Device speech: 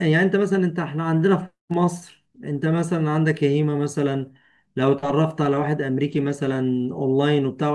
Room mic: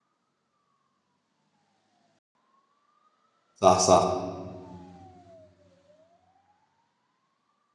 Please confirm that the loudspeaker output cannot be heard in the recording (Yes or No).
Yes